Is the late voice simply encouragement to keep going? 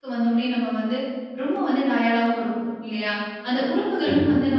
Yes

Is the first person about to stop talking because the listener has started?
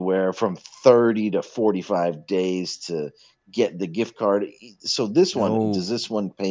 No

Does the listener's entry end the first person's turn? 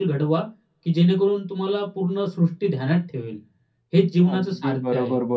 Yes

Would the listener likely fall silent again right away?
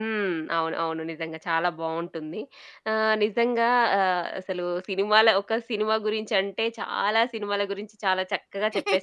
Yes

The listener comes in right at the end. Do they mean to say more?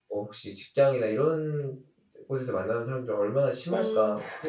Yes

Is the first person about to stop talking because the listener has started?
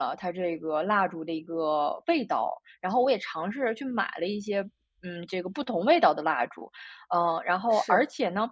No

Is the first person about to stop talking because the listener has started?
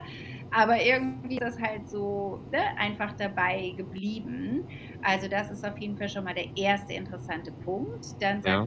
No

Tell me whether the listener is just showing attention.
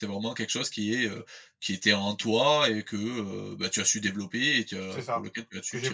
No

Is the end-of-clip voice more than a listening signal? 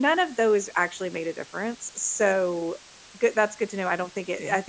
No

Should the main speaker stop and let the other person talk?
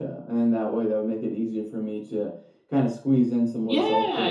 Yes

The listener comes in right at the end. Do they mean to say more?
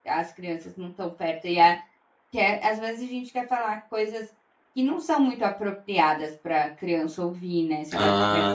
Yes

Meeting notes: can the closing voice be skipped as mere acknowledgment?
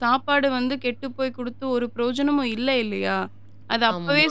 Yes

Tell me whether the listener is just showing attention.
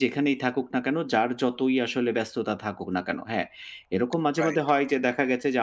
Yes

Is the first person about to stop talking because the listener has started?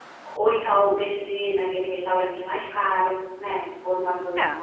No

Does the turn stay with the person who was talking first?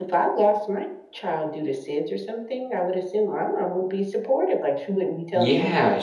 No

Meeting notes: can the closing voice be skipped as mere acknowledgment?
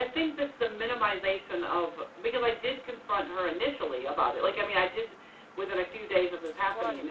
No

